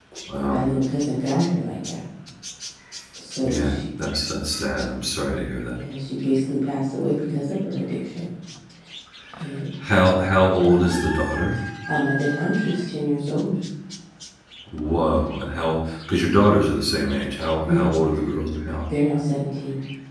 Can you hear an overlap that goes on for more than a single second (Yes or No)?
No